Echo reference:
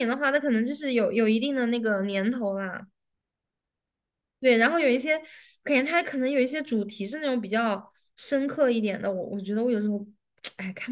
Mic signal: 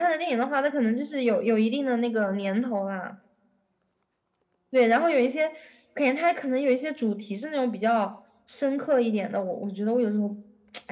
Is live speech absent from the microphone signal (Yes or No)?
Yes